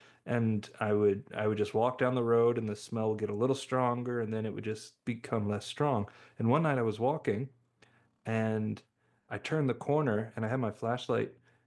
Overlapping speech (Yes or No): No